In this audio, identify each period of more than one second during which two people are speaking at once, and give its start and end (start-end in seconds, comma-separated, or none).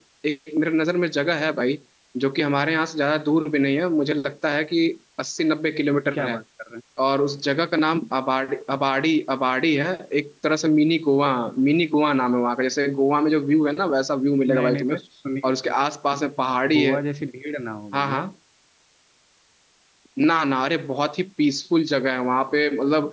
none